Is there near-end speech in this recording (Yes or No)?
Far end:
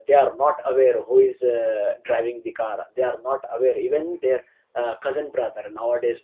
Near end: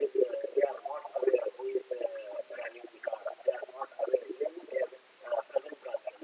No